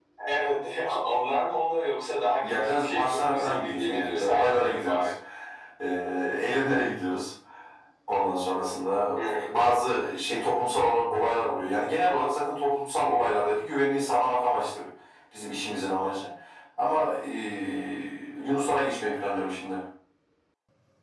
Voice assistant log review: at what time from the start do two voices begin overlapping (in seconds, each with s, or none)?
2.4 s